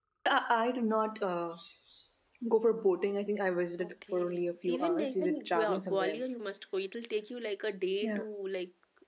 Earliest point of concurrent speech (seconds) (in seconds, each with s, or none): 3.8 s